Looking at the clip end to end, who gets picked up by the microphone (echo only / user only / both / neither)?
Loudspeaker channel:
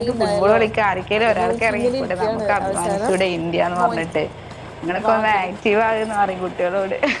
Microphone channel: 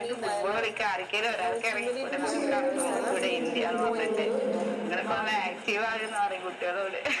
both